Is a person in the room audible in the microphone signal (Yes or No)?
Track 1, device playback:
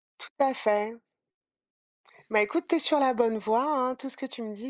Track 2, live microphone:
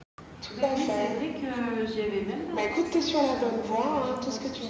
Yes